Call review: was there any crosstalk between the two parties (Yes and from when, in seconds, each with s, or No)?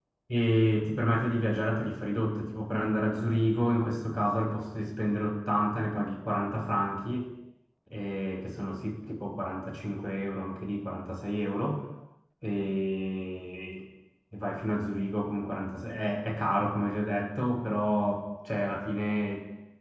No